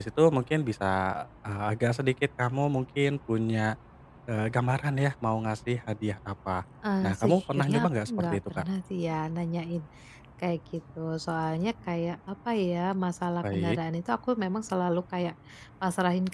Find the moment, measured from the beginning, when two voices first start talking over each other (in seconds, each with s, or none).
7.0 s